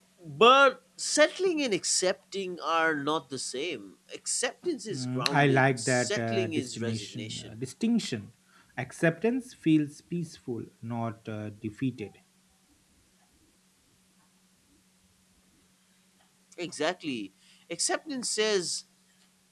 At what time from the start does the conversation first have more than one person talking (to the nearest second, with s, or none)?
5 s